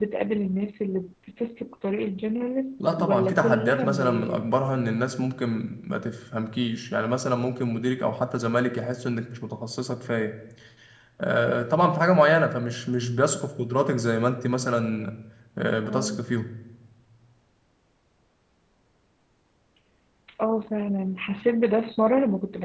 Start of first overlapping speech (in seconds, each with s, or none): 2.9 s